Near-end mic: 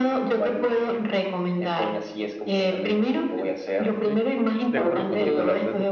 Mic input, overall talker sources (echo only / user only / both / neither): both